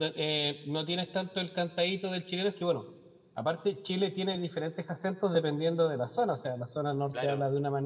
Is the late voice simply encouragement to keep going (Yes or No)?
Yes